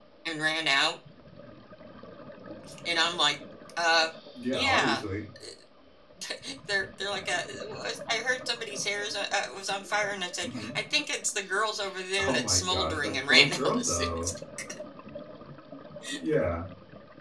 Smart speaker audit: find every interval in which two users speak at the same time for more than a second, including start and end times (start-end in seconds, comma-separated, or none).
12.2-14.3